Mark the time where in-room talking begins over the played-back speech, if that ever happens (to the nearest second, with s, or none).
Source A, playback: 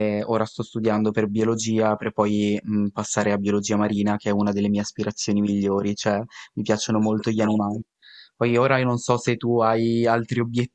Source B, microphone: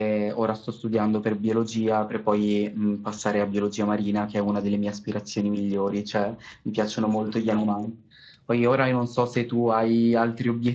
none